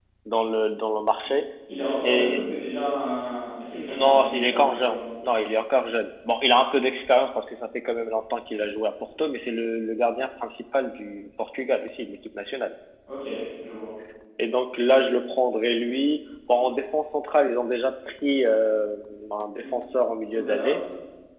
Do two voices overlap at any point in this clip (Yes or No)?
Yes